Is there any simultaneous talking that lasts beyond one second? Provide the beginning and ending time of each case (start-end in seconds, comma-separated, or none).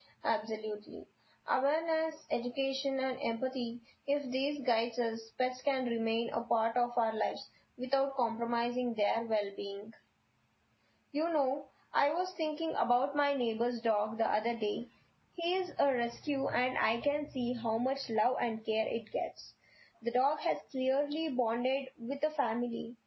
none